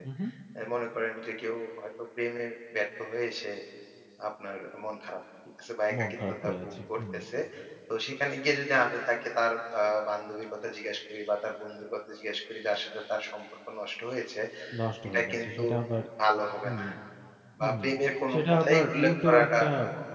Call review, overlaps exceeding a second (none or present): present